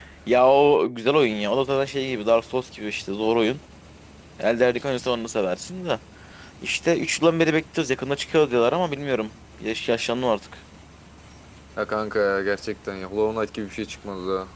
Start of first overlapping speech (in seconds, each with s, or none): none